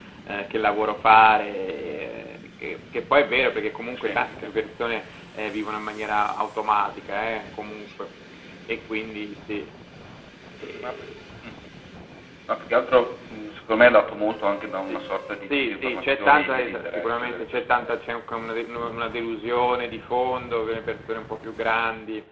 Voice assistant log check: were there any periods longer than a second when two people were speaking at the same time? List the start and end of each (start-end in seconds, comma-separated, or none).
15.5-17.9